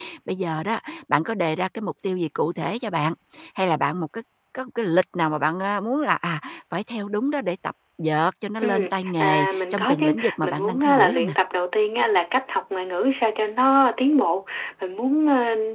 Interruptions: present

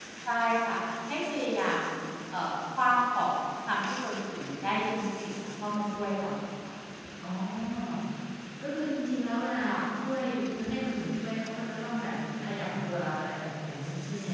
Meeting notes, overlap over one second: none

